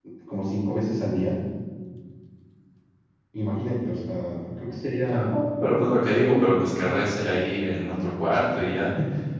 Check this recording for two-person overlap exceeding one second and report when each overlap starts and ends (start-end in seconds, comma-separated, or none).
none